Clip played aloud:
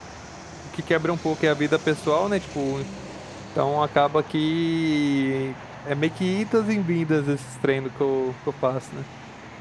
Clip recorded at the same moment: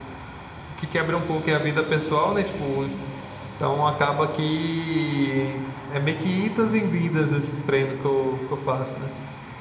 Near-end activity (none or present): none